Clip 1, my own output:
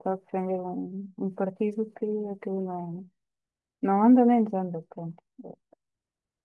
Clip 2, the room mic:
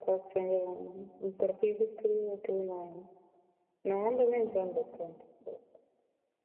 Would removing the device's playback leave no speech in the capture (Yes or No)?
Yes